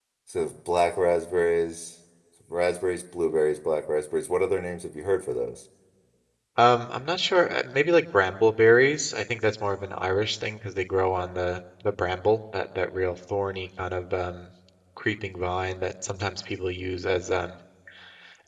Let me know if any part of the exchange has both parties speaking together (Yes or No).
No